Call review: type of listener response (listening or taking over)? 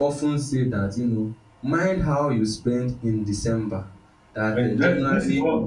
taking over